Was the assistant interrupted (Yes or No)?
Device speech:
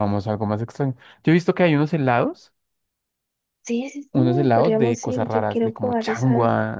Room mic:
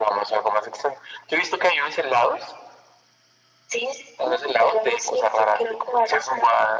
No